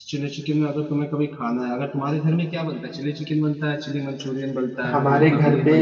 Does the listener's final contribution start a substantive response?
Yes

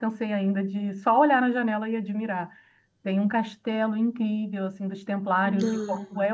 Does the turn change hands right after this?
No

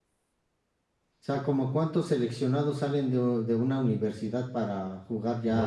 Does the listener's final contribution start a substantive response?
Yes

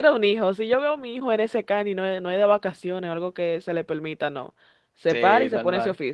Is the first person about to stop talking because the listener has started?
Yes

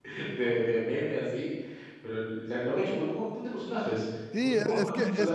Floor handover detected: Yes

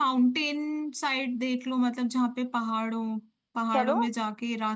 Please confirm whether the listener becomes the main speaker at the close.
No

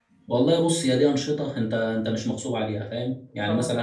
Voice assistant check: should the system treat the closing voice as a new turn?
No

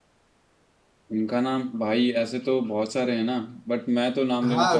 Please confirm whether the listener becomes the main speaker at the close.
Yes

